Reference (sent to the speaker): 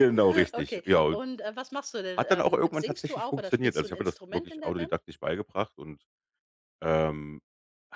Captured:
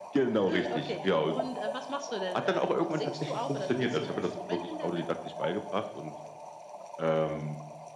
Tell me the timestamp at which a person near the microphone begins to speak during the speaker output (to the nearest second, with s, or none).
none